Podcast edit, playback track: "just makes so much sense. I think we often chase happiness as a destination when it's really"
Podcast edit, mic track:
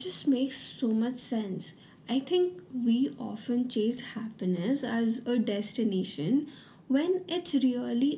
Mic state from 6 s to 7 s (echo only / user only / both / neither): echo only